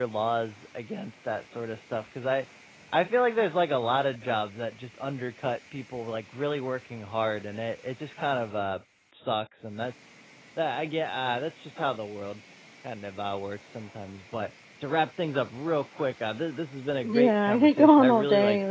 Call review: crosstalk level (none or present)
present